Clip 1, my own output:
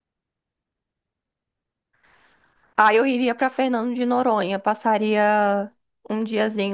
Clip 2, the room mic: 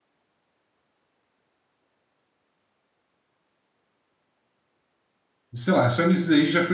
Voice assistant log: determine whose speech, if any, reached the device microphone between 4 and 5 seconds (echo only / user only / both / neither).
neither